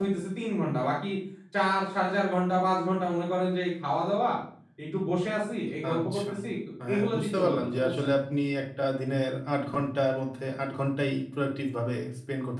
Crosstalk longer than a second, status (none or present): present